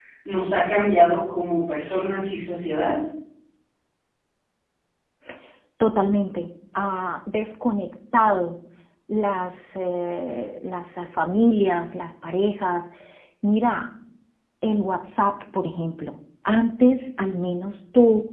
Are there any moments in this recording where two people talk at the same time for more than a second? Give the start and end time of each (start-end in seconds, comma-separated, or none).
none